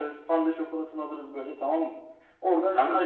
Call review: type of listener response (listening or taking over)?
taking over